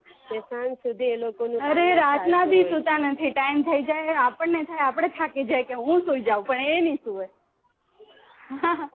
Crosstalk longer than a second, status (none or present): present